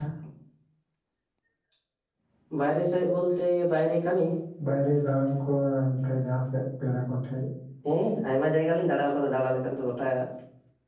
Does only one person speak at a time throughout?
Yes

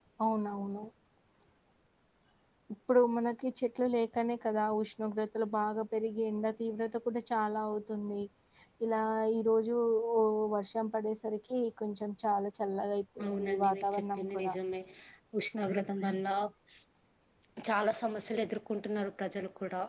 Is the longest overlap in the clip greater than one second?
Yes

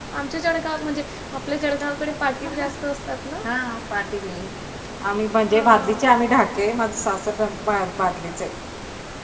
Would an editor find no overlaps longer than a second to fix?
Yes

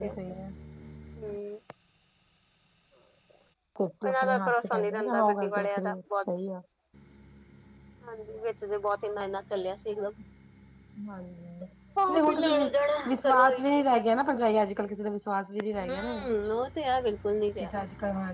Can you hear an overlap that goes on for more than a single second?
Yes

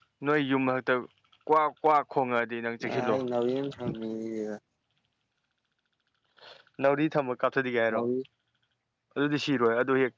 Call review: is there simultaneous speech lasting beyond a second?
No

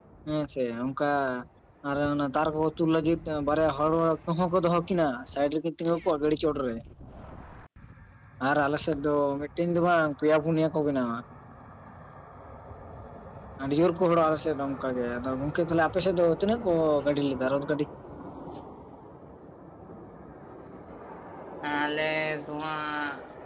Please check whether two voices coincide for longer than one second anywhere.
No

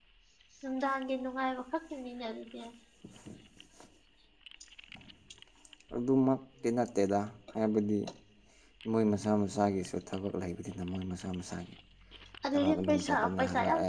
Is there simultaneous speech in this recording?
Yes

